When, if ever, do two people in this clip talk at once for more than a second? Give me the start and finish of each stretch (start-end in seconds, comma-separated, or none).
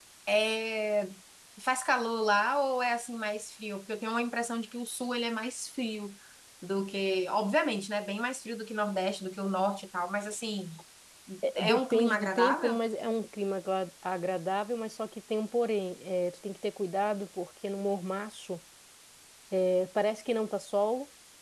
11.6-12.8